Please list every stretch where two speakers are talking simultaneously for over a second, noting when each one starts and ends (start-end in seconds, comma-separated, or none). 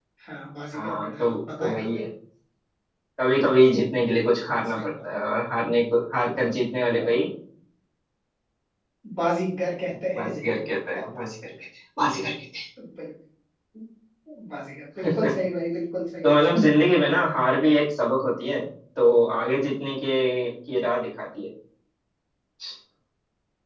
0.7-2.0